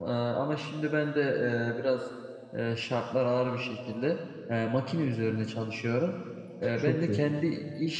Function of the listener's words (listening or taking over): listening